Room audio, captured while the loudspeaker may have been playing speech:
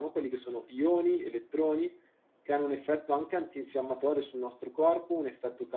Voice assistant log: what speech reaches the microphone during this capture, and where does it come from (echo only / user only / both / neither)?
echo only